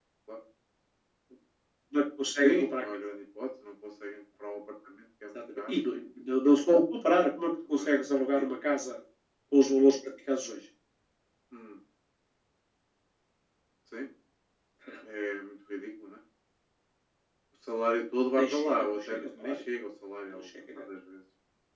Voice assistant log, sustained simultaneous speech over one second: present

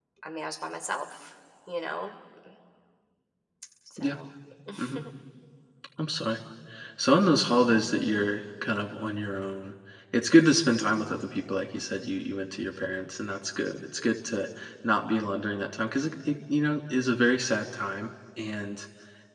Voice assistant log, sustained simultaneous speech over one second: none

